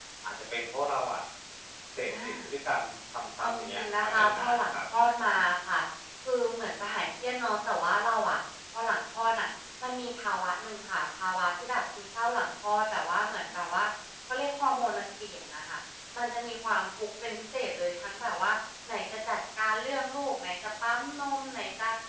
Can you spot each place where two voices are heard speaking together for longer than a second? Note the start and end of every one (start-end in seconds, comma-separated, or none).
3.4-4.8